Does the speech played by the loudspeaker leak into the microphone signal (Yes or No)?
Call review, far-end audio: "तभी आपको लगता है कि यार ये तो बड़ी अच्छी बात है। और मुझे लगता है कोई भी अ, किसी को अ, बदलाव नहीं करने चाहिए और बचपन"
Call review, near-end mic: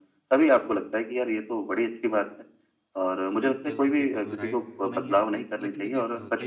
Yes